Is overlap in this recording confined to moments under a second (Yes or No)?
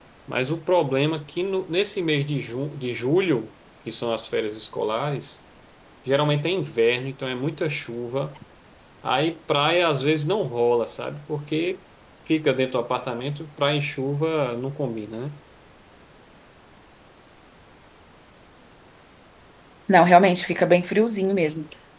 Yes